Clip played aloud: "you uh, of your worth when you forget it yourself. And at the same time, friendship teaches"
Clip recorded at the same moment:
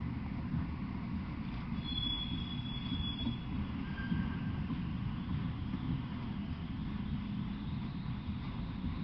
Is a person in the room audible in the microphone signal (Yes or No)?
No